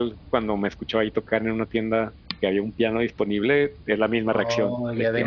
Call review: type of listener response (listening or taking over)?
taking over